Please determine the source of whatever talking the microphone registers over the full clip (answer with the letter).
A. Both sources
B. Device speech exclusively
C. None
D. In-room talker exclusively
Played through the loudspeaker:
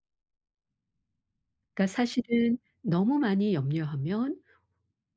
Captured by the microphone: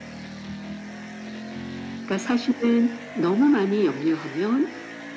B